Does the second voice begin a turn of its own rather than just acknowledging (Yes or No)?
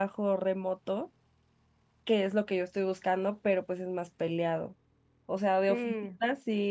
No